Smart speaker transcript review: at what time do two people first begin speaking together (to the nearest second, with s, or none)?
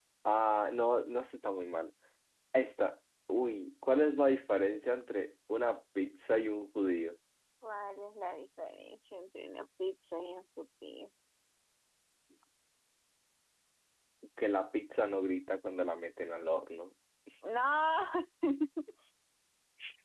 none